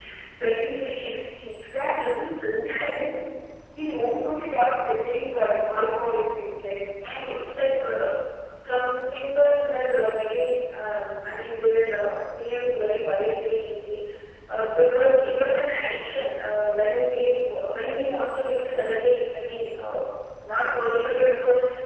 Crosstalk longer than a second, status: none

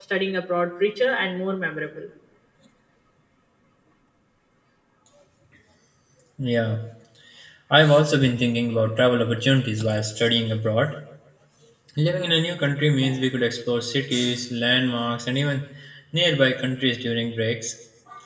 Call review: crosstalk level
none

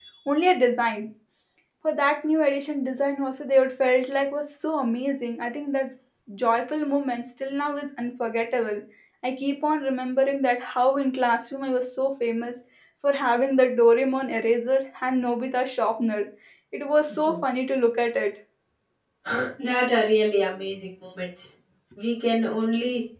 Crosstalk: none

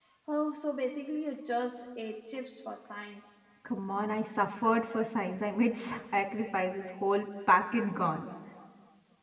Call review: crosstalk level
none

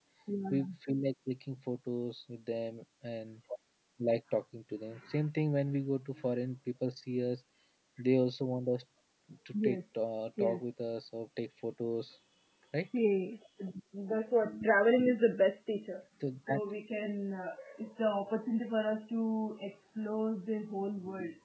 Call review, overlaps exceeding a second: none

